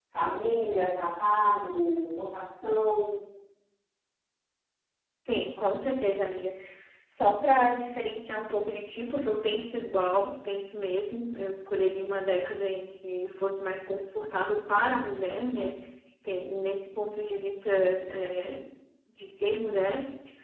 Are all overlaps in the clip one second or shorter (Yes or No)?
Yes